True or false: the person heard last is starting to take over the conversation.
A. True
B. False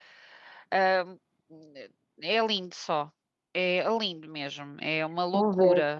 A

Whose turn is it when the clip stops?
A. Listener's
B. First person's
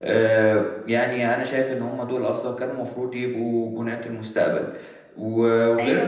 B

